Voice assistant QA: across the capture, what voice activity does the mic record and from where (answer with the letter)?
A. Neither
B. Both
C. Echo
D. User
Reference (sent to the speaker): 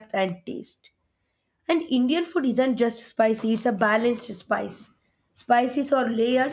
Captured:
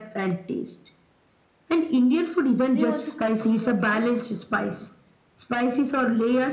B